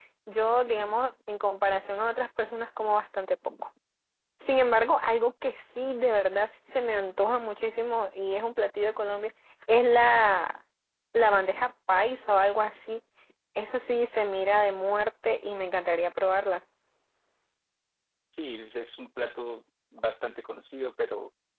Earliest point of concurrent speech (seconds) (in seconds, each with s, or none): none